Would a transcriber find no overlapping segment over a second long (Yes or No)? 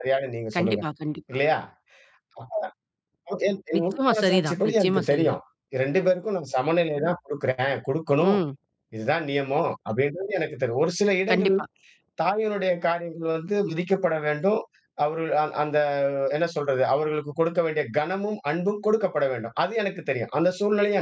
No